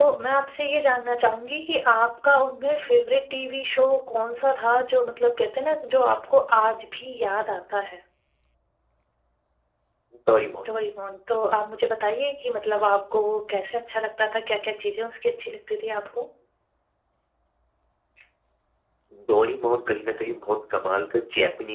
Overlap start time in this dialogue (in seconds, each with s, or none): none